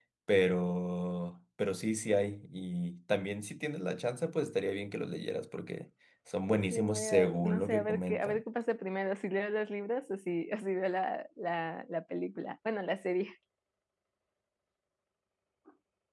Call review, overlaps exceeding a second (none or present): present